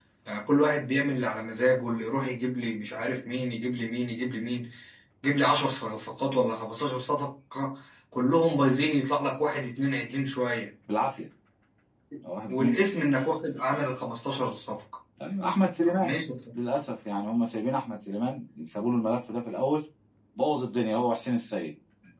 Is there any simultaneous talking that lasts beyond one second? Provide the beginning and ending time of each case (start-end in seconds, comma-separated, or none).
none